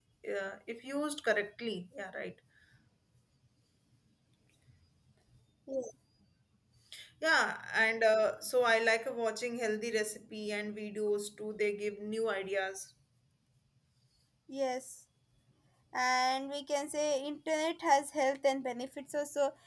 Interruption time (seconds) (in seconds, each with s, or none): none